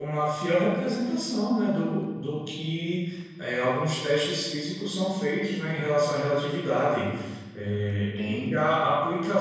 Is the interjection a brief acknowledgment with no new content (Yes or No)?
Yes